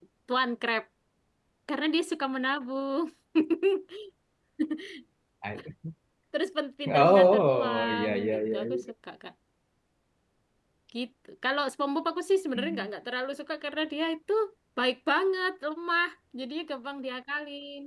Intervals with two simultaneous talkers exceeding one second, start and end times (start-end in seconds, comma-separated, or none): 7.0-8.6